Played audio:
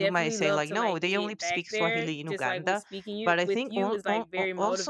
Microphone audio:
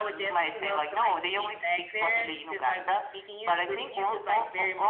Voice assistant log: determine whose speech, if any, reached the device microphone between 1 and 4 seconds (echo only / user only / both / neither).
echo only